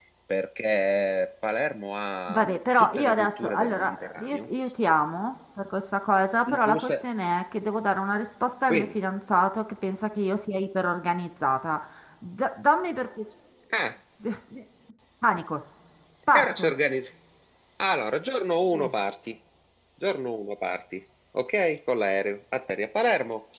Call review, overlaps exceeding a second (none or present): present